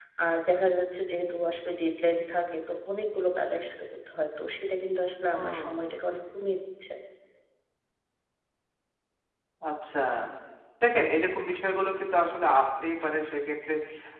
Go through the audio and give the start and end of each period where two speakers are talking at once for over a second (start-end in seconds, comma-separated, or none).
none